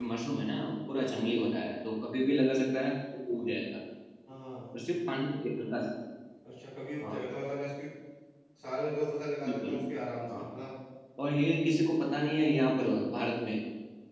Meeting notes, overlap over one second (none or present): none